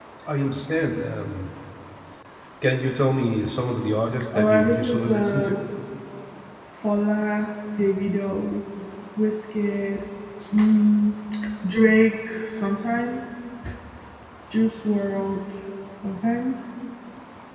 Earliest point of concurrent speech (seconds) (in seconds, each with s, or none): 4.3 s